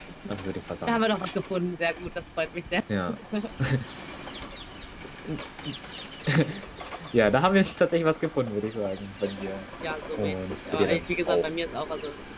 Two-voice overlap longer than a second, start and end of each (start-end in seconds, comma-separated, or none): 10.2-11.5